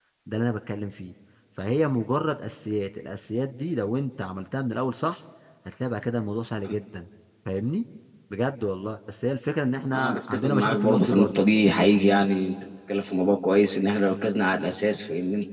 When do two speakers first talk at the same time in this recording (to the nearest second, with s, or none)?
10 s